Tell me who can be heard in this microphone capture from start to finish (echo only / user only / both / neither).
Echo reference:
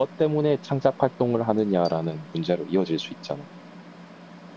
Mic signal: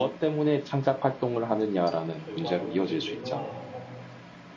both